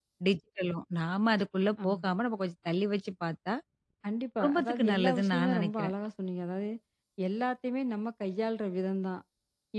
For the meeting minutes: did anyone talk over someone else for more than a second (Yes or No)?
Yes